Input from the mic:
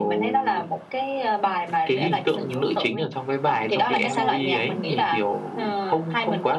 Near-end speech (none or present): present